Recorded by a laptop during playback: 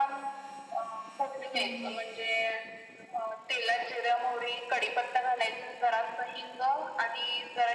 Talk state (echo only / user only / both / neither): both